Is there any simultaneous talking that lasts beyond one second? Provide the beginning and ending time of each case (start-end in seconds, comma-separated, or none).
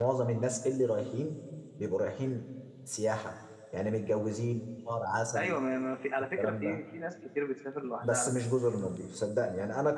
none